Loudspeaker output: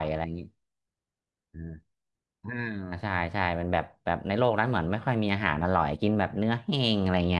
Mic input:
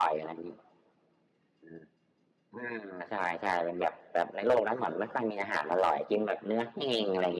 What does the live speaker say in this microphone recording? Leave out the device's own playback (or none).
none